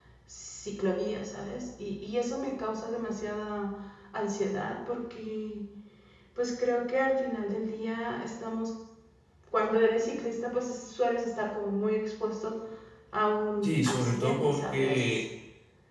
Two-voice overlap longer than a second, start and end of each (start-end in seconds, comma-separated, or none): 13.6-15.1